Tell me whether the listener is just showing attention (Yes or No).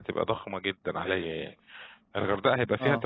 Yes